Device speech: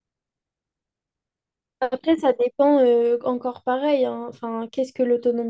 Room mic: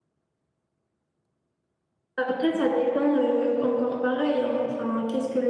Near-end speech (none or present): none